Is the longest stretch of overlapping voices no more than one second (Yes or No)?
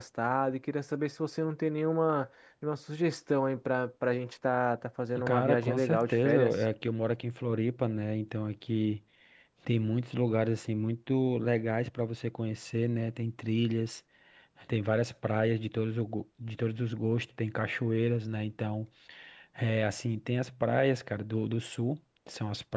No